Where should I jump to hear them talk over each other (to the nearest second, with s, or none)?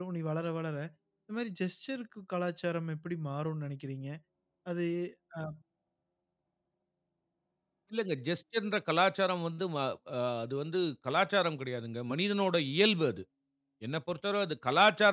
none